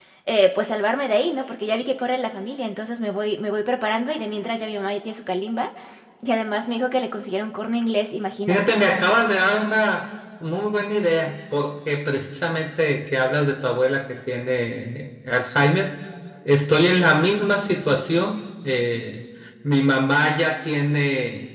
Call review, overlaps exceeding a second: none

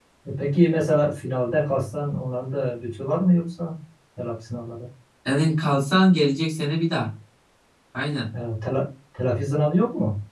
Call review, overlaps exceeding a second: none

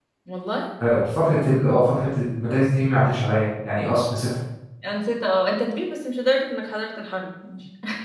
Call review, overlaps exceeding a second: none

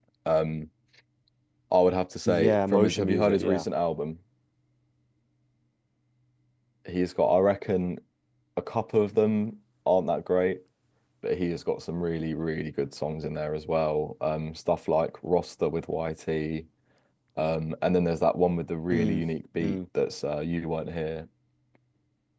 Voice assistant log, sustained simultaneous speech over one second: present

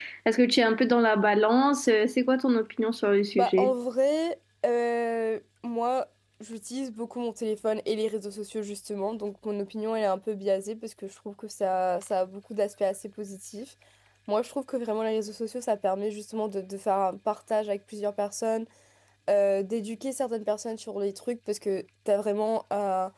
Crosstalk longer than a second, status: none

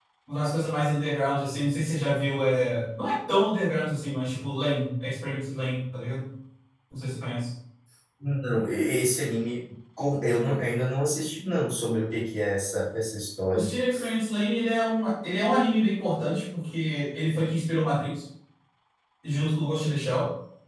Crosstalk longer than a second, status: none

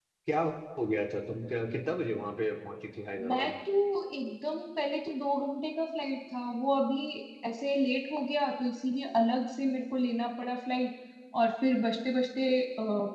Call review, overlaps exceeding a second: none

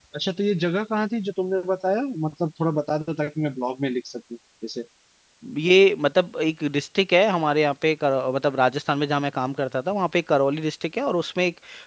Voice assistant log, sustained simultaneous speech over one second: none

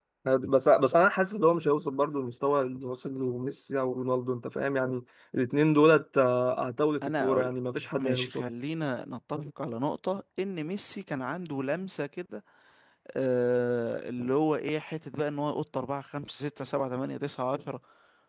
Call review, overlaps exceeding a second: none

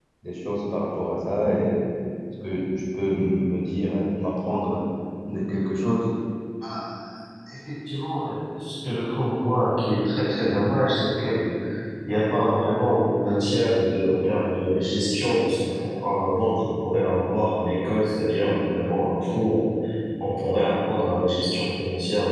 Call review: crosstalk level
none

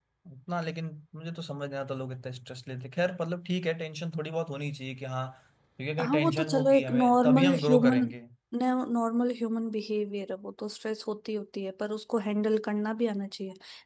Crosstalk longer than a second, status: present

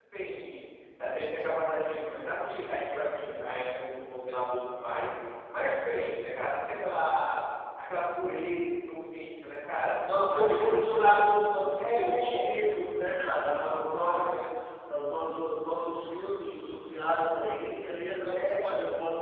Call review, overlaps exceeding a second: present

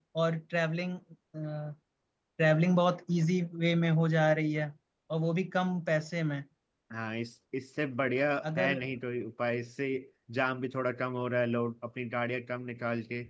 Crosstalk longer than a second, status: none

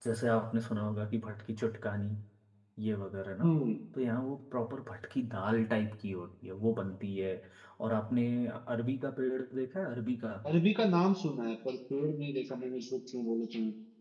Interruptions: none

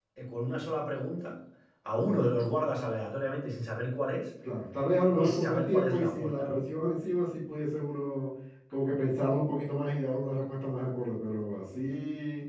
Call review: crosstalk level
present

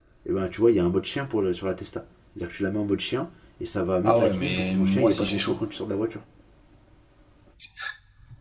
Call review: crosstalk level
present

